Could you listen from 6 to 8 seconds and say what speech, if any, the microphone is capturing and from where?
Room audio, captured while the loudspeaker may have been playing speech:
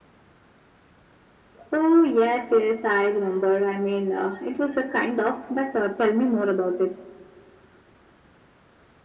echo only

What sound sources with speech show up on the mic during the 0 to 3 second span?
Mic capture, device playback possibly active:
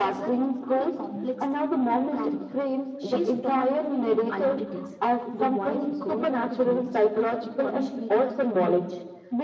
echo only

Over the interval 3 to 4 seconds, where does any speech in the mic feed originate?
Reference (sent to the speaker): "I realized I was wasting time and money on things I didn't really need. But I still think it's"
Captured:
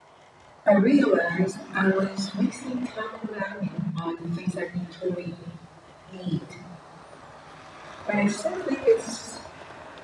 echo only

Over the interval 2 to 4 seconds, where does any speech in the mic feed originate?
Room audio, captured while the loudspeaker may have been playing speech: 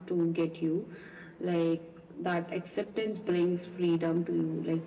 echo only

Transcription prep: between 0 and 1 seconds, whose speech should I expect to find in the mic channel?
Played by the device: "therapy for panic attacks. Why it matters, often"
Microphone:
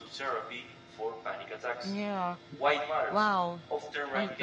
echo only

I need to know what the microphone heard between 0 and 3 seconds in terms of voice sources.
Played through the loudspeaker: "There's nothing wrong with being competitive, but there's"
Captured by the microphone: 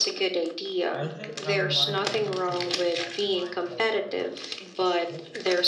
both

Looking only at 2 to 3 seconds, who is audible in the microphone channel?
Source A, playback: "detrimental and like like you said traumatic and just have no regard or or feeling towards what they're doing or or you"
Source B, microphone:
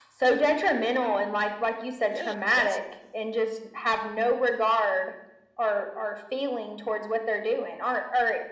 both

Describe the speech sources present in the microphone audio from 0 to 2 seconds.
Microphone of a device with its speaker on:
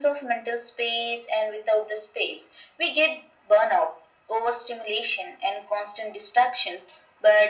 echo only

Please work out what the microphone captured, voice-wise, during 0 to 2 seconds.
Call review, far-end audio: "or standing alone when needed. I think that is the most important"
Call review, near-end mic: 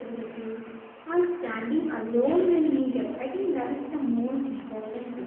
echo only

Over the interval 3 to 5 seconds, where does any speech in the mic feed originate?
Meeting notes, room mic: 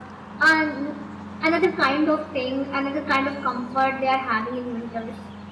echo only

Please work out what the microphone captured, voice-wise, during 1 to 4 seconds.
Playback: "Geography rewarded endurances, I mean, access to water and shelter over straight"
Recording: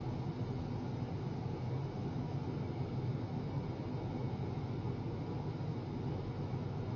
neither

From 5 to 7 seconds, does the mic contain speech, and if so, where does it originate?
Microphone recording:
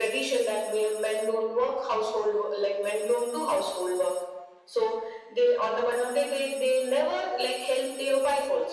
echo only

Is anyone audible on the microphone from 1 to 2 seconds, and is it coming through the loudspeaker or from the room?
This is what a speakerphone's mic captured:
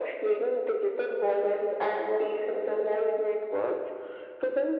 echo only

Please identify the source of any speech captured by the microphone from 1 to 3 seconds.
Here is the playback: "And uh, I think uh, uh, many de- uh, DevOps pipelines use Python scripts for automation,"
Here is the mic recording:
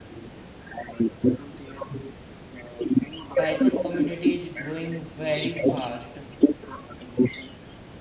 echo only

